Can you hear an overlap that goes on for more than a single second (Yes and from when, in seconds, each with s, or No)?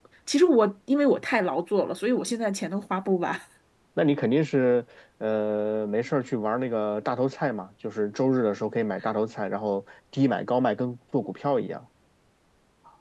No